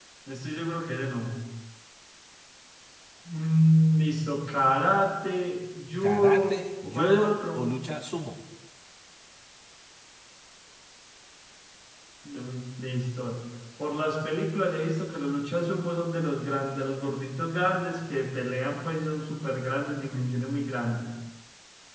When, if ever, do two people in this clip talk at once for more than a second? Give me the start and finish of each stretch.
6.0-7.7

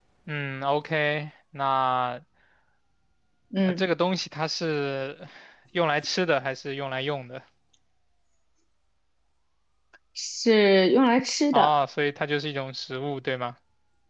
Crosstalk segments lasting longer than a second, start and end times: none

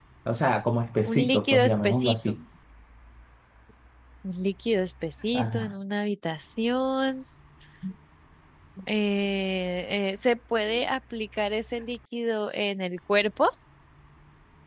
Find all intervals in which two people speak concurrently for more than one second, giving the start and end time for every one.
1.1-2.3

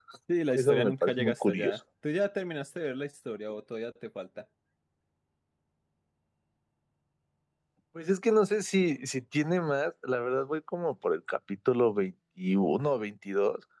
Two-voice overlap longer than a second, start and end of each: 0.6-1.8

